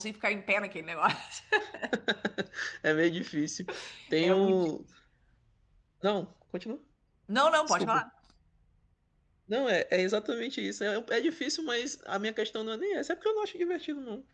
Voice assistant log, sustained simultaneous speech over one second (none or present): none